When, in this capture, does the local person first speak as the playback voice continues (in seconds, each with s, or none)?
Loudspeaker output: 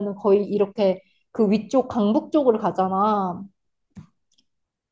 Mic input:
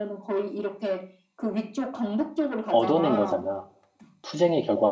2.7 s